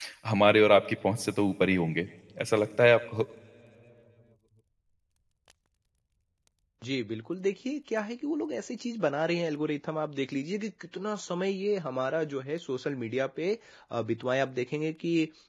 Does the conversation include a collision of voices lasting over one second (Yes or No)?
No